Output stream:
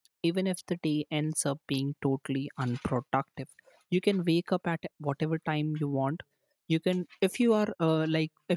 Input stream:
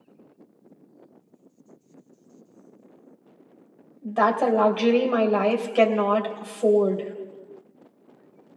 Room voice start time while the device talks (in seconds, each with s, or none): 4.0 s